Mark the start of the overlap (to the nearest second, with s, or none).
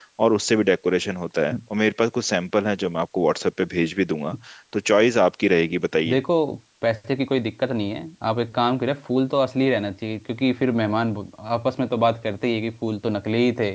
none